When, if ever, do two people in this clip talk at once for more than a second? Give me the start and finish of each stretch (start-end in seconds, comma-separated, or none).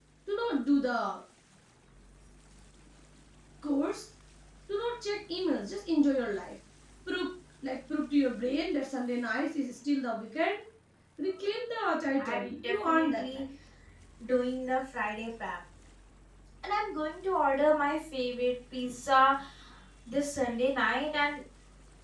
12.2-13.4